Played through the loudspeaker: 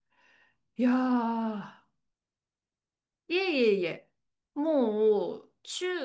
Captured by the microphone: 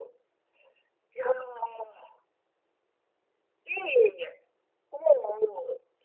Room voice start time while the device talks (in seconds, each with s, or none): none